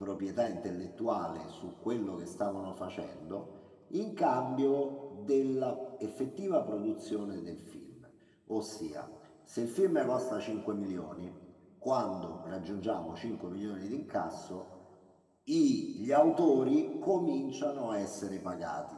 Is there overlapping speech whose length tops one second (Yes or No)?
No